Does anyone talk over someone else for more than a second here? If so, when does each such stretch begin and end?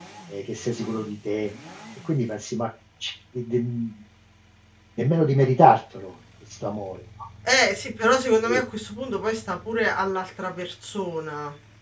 none

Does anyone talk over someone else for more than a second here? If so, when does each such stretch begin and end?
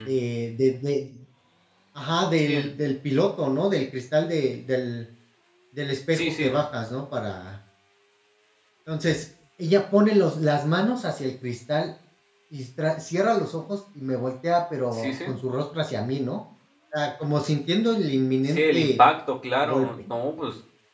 none

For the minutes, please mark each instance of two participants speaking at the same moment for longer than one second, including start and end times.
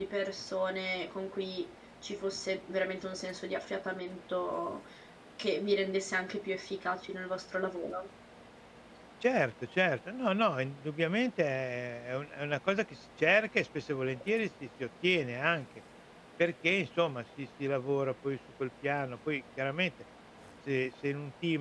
none

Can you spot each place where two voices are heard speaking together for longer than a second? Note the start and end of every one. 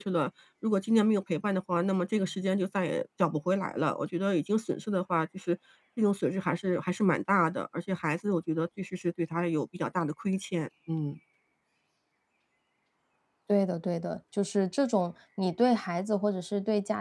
none

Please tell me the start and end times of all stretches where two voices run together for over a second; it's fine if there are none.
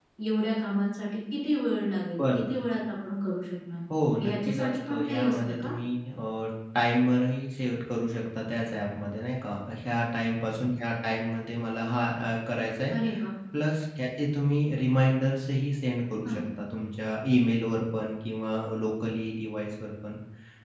4.2-5.7

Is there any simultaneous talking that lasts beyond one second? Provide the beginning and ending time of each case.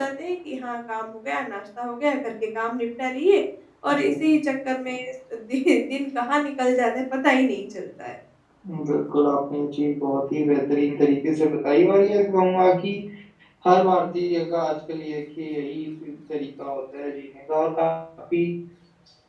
none

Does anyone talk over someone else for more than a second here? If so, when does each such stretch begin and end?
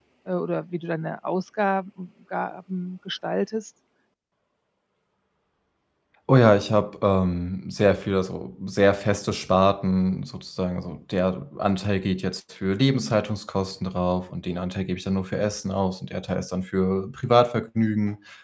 none

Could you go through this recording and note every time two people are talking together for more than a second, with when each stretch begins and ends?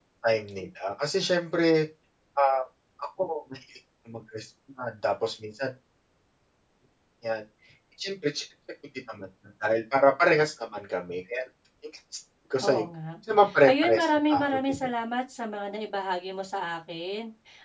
13.6-14.9

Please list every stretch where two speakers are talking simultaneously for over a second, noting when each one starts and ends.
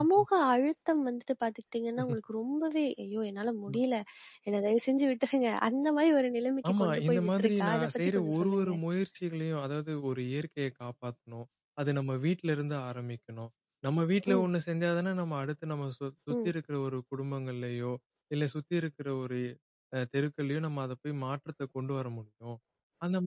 6.7-8.8

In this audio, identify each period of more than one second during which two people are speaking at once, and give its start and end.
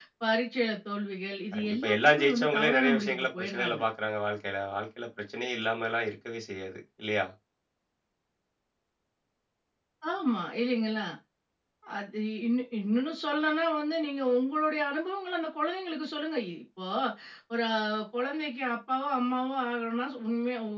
1.5-3.8

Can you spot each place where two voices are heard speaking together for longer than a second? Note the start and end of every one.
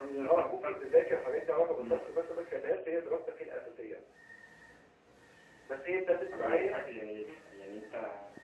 none

